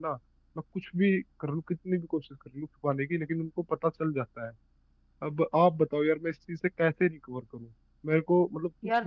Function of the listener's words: listening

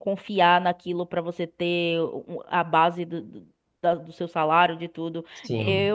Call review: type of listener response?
taking over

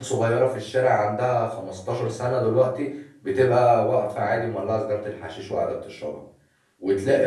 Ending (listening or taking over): listening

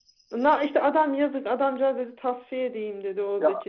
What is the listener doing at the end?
listening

